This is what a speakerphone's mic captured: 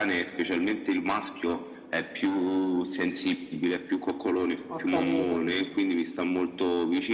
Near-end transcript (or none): ho capito.